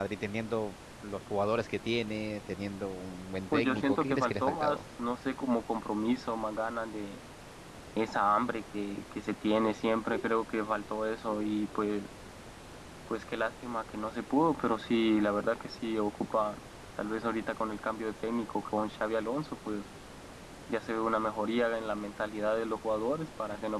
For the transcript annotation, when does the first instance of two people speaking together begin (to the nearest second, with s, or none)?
4 s